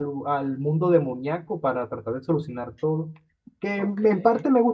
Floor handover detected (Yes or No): No